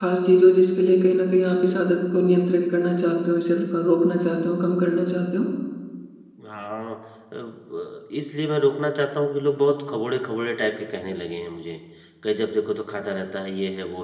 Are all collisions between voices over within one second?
Yes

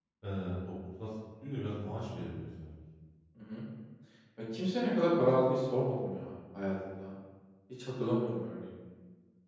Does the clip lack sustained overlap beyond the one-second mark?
Yes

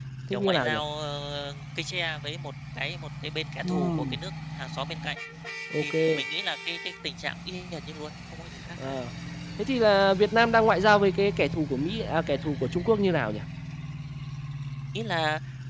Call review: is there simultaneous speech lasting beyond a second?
No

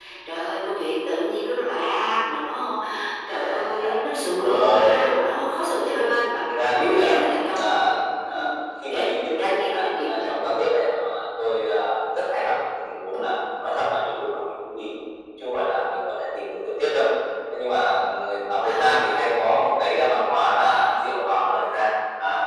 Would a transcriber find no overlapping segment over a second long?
No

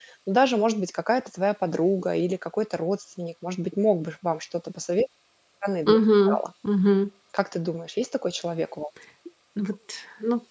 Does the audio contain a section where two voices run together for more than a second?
No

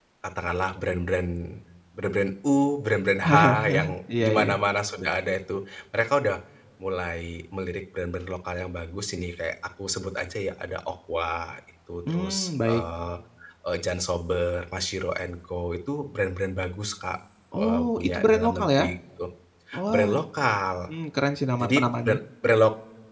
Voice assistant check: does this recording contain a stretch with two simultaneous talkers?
Yes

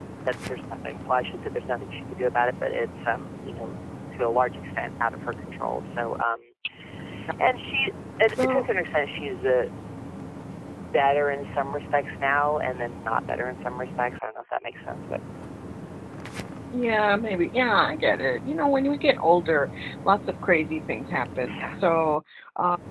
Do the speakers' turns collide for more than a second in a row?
No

